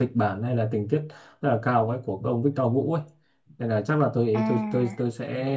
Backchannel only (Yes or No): Yes